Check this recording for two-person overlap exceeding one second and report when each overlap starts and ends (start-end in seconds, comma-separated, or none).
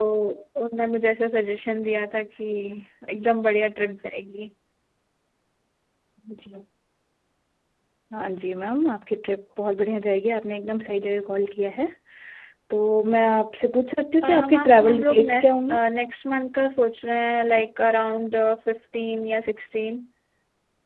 14.2-15.5